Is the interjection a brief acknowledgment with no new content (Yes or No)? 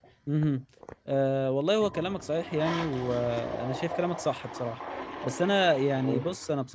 Yes